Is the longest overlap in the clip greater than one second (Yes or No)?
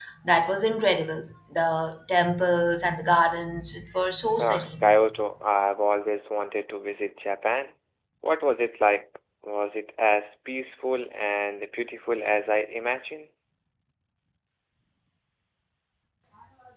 No